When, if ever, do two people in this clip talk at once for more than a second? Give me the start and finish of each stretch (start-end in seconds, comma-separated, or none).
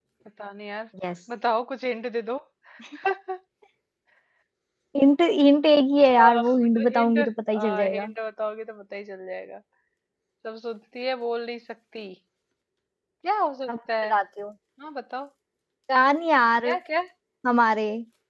6.2-8.1